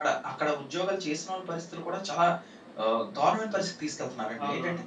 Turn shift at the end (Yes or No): No